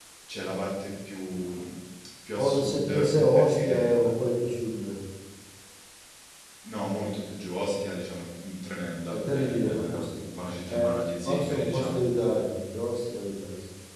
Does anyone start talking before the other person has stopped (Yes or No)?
Yes